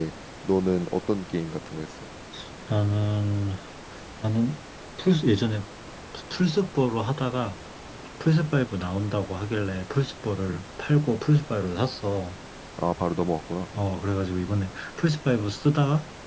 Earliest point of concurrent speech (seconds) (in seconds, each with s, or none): none